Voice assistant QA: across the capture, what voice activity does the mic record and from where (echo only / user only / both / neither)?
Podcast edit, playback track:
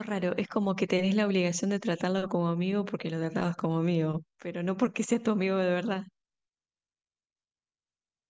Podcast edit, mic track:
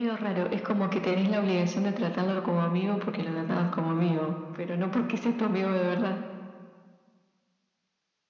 echo only